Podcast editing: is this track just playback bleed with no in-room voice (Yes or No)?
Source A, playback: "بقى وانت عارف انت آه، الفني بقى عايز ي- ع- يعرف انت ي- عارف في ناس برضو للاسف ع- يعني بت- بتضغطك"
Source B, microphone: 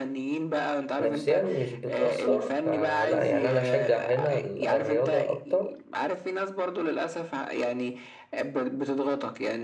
No